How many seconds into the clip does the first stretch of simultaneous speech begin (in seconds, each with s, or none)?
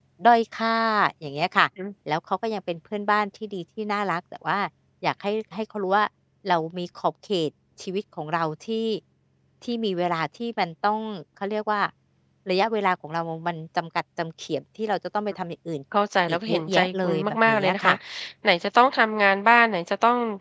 16.3 s